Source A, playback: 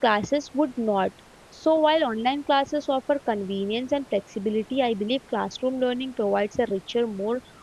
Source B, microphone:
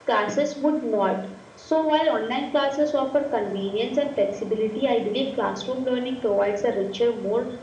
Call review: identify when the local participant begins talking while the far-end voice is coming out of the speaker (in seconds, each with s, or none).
none